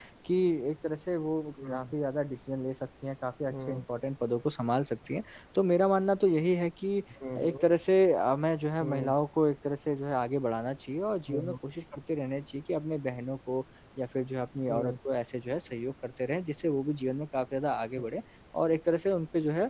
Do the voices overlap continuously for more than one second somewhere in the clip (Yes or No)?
No